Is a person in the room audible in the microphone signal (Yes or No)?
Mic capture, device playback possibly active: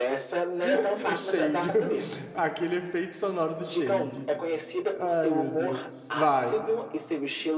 Yes